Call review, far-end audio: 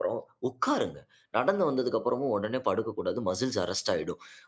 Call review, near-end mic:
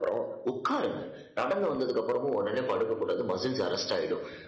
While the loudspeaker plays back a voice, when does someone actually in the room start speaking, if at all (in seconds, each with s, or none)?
none